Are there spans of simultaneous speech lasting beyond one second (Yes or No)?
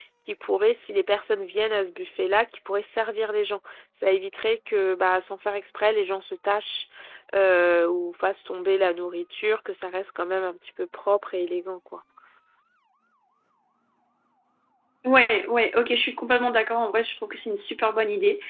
No